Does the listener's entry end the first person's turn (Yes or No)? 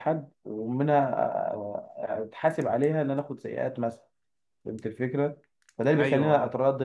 No